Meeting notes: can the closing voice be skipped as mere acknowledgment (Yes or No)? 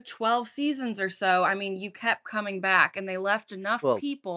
Yes